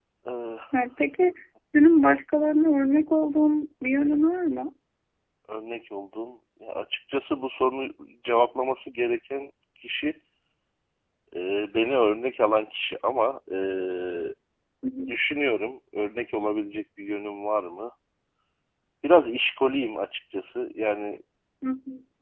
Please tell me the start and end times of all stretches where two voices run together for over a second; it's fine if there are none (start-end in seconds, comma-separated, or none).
none